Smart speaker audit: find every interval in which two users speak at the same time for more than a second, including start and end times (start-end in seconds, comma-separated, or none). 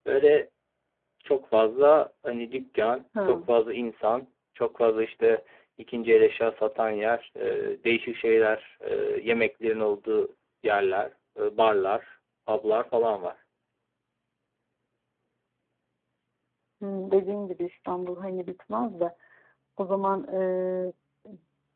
none